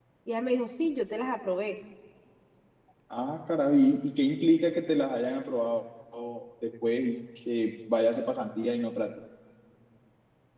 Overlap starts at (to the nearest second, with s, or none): none